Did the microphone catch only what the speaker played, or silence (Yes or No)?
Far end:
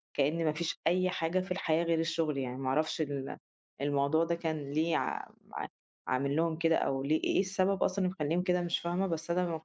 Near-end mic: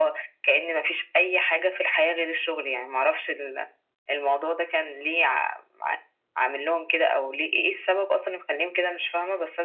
Yes